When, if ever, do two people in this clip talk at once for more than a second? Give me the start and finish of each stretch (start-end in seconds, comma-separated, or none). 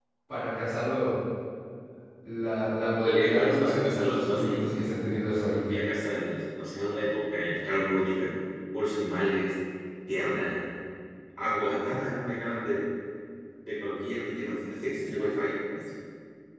2.9-4.6